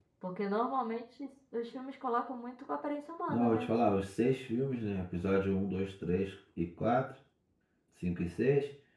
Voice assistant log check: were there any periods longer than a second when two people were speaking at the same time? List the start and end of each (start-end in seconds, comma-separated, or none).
none